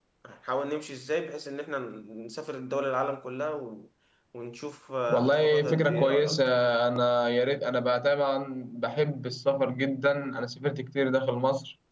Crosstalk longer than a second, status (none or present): present